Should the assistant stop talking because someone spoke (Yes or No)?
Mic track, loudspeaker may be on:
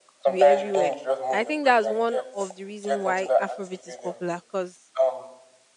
Yes